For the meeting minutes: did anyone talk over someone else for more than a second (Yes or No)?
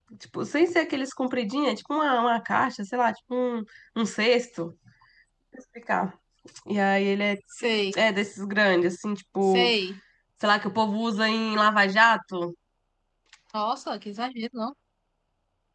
No